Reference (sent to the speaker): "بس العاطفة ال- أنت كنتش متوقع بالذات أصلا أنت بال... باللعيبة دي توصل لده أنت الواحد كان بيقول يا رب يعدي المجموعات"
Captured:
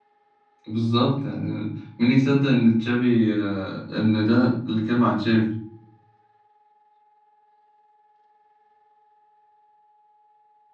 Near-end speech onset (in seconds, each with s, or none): 0.7 s